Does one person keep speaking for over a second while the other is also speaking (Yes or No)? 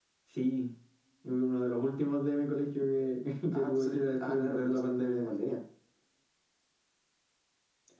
Yes